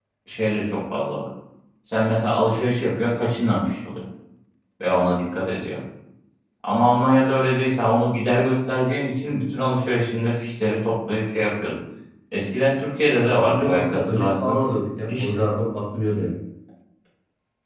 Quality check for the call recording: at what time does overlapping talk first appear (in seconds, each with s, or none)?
13.3 s